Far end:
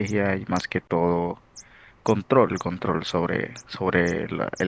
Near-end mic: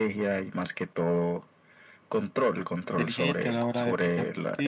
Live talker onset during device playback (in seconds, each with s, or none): 2.9 s